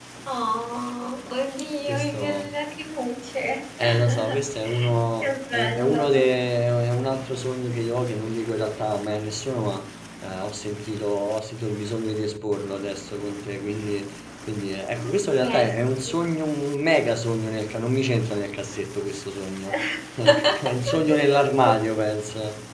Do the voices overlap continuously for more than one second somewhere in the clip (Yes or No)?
Yes